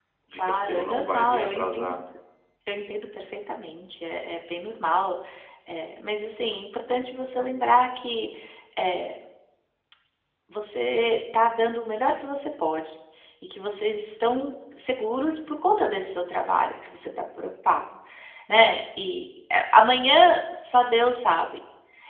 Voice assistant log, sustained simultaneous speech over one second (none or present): present